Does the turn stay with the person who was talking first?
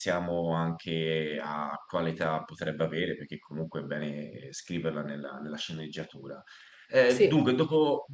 Yes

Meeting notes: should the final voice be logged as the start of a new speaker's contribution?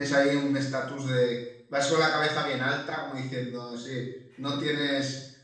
No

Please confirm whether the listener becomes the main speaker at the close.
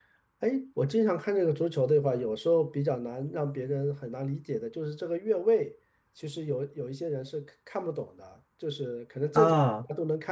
No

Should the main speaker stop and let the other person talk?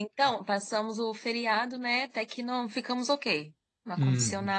No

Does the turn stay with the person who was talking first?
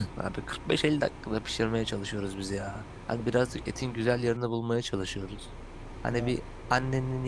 Yes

